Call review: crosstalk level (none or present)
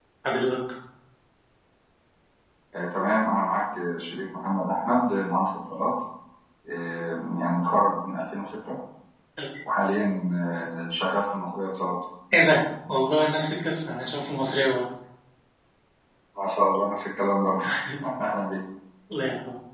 none